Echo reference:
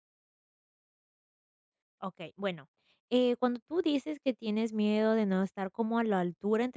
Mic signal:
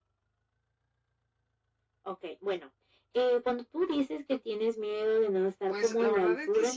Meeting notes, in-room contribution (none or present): present